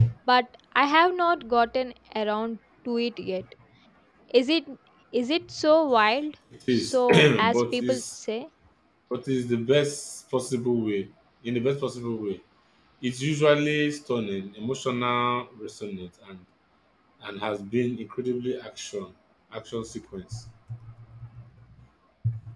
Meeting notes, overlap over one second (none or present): present